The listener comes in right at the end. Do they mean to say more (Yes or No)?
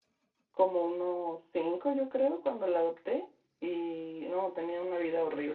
Yes